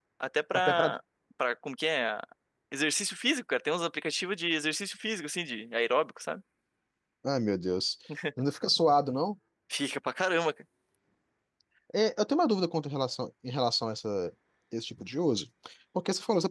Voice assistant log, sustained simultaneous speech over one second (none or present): none